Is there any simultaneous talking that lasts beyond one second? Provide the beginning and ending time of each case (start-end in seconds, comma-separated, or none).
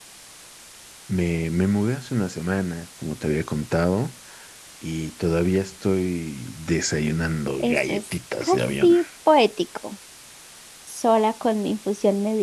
7.6-9.0